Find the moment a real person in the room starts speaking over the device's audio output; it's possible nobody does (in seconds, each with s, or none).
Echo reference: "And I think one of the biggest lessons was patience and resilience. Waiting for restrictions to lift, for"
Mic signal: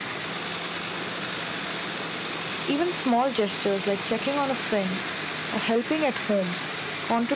2.6 s